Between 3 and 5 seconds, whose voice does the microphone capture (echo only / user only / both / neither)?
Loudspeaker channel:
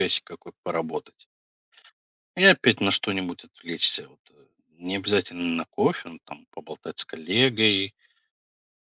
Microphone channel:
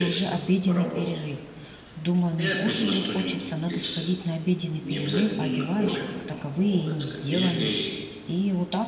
both